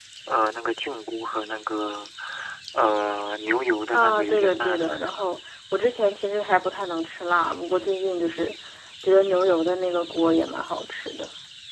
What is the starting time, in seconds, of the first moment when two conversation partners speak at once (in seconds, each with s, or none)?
3.9 s